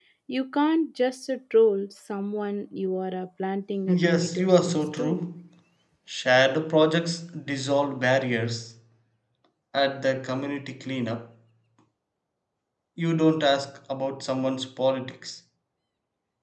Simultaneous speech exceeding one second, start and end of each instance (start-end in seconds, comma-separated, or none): 3.9-5.2